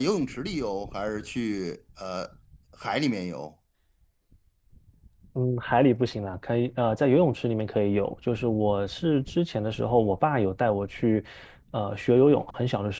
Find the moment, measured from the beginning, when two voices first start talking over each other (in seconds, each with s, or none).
none